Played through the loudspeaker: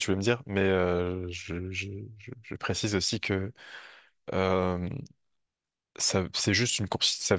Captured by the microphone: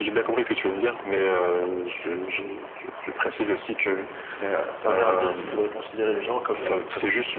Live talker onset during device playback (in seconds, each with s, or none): 4.4 s